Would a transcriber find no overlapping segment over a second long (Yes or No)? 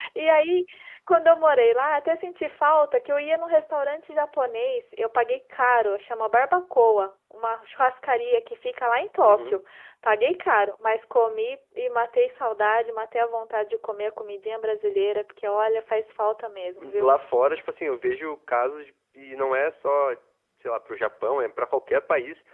Yes